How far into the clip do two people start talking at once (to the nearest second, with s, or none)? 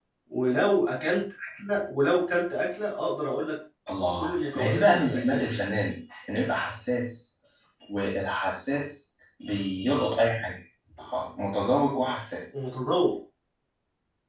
4 s